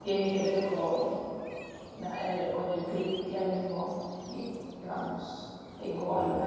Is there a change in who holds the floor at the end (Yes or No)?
No